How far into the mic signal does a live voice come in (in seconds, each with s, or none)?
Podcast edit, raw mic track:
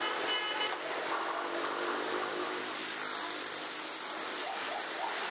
none